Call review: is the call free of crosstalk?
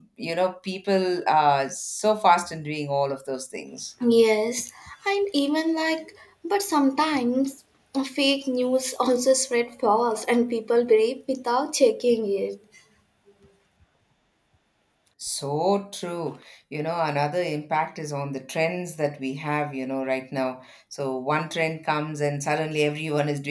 Yes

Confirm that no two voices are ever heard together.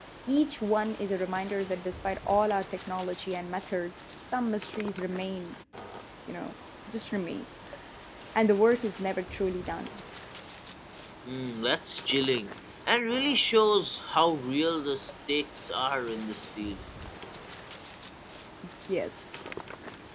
Yes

